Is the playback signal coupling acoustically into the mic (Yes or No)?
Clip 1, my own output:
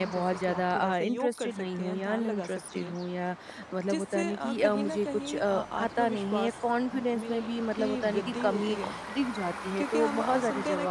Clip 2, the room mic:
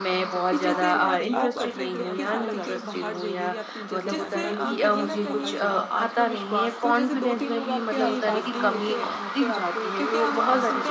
Yes